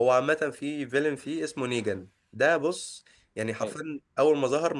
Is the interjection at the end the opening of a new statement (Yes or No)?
No